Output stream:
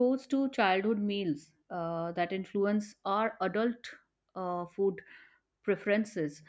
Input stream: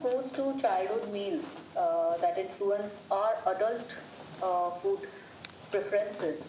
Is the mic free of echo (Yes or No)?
No